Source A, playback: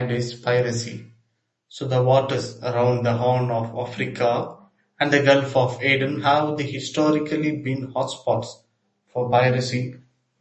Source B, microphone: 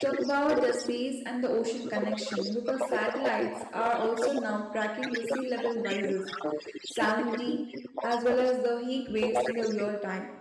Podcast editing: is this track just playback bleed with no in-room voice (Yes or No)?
No